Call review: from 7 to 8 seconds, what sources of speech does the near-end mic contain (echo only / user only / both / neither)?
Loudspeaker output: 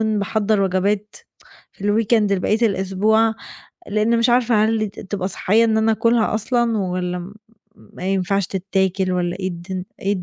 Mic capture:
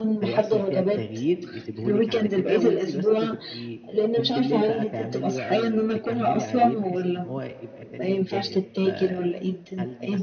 both